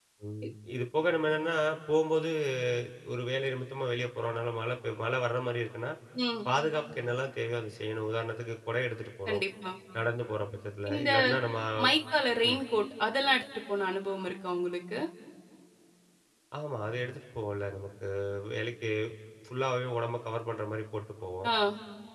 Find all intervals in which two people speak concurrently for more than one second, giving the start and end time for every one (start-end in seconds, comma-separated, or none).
none